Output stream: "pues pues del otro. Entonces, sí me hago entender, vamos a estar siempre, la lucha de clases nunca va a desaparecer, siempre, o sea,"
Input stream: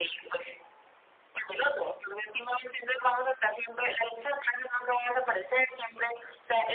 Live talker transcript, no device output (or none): none